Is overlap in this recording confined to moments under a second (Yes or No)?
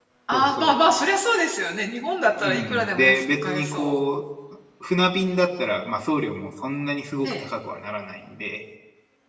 No